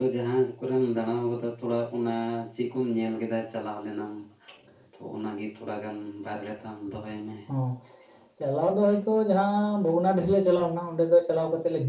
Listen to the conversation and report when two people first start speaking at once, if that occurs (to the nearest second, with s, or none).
none